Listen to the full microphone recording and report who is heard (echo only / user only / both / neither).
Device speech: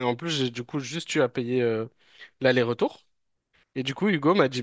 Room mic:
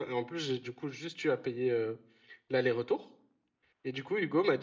echo only